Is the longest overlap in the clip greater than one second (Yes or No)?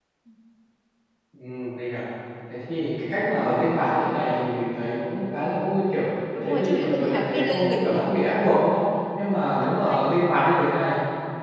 Yes